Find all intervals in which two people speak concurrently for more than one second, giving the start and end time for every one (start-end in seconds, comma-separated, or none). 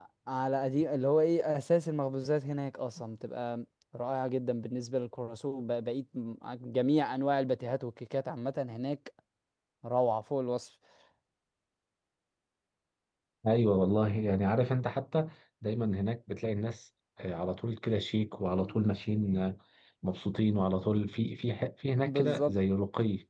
none